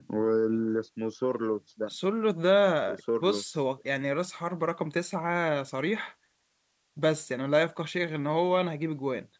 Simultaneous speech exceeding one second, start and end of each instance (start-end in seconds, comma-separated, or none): none